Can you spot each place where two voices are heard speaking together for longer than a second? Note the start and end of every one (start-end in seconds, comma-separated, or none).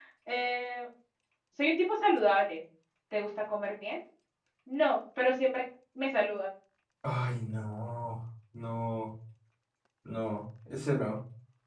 none